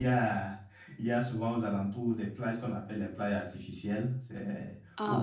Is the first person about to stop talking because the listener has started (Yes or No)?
No